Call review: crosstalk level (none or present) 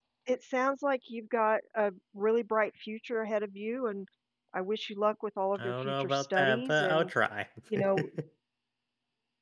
present